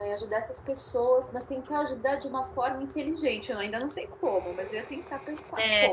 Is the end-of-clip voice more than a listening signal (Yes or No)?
Yes